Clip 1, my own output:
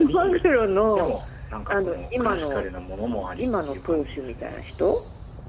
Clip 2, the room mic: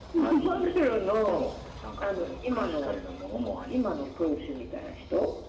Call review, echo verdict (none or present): present